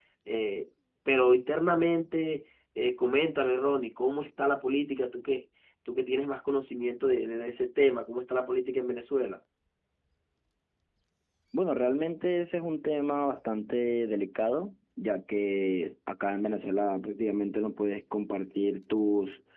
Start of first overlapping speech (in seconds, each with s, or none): none